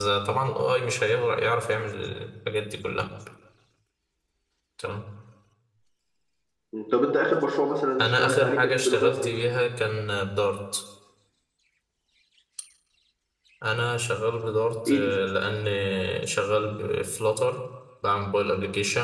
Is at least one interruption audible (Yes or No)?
Yes